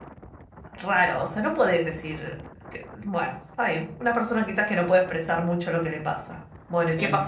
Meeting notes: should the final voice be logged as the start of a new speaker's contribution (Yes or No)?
Yes